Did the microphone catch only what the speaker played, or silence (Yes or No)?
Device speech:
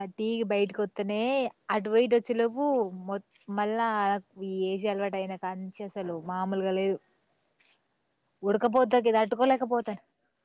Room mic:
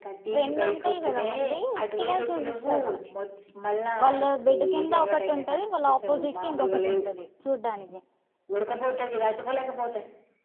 No